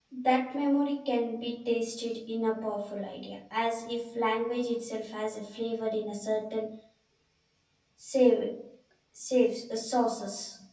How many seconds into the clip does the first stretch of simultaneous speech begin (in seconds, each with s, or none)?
none